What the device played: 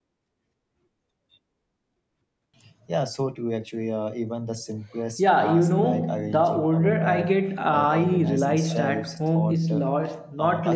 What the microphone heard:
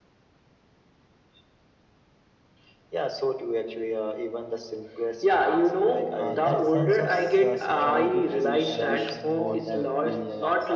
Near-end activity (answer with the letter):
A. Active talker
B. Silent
A